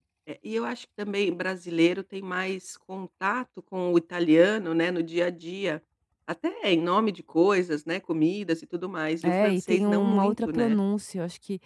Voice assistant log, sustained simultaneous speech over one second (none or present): present